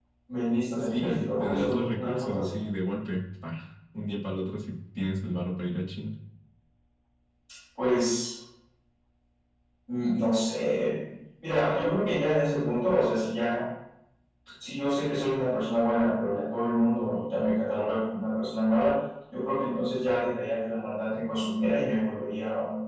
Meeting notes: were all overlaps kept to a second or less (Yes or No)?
No